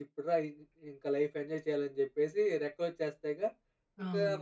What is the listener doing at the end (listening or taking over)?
listening